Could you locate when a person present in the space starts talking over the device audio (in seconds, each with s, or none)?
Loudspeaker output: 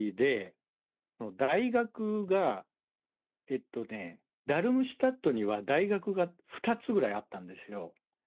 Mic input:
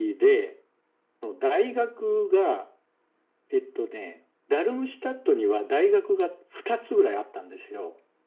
none